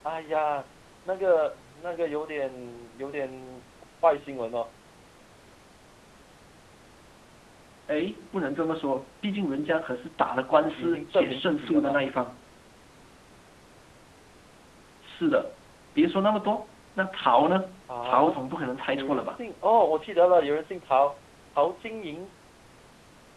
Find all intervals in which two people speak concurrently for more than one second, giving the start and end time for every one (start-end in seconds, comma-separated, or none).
10.8-12.0